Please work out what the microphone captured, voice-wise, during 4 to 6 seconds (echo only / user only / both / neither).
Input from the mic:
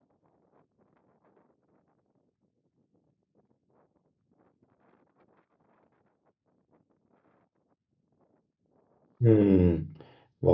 neither